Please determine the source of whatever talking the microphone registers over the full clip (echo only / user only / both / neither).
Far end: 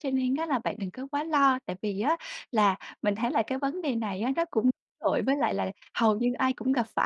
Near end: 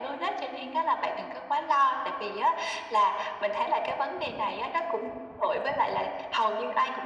echo only